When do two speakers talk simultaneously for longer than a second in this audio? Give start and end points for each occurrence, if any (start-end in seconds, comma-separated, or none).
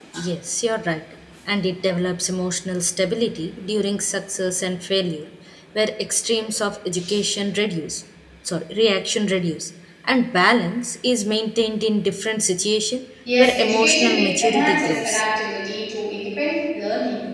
13.4-15.2